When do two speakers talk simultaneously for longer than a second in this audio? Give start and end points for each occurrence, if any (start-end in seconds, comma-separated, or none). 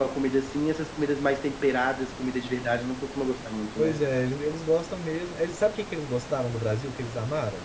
none